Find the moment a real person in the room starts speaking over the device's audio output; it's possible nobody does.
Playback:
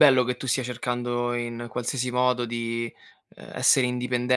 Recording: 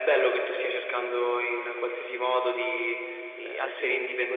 3 s

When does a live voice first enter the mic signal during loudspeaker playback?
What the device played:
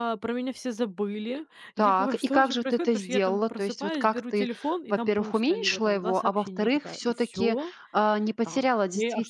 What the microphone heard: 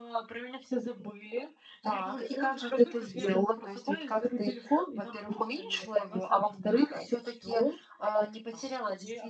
none

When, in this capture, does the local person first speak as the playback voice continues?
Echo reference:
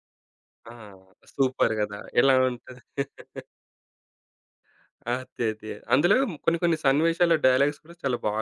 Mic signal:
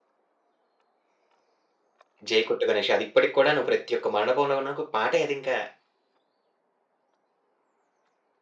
2 s

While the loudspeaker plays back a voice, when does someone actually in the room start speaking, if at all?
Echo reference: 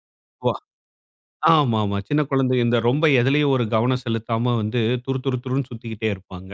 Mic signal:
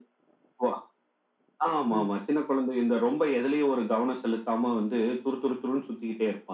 2 s

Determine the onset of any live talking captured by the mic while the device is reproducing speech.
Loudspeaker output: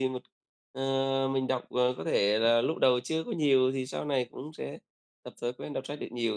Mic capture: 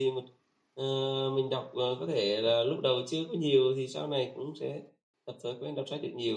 none

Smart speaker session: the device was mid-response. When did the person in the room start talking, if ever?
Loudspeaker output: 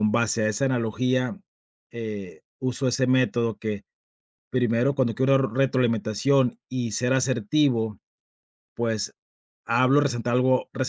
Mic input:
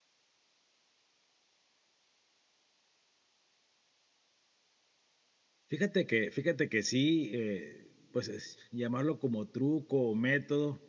6 s

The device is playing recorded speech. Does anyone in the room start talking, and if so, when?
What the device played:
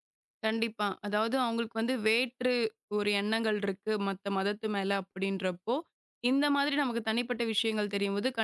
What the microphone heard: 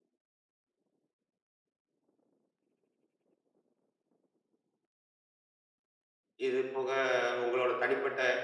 6 s

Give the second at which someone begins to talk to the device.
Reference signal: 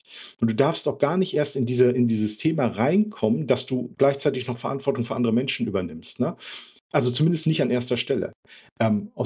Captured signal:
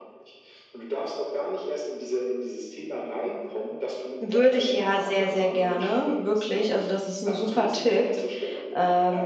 4 s

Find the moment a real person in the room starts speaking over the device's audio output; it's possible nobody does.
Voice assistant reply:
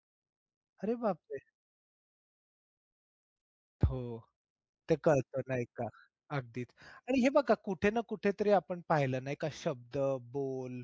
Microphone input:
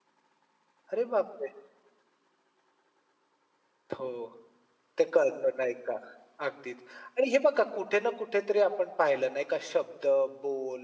none

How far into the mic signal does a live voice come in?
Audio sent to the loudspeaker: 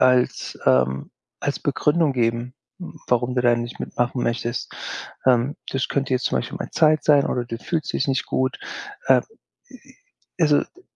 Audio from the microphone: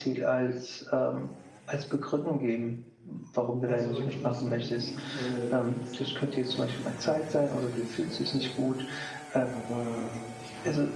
4 s

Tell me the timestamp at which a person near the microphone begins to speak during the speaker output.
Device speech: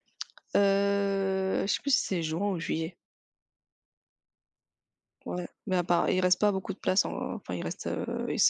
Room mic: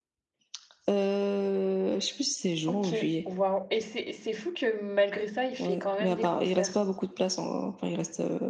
3 s

